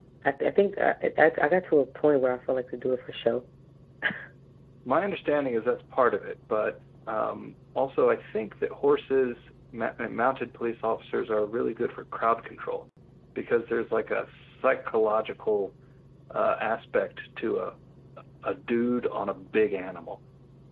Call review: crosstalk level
none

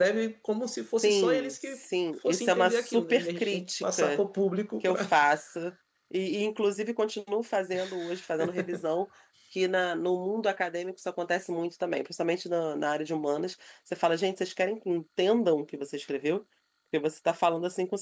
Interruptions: present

